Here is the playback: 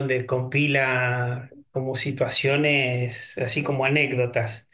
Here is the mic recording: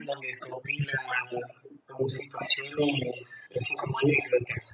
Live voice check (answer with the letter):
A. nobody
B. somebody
A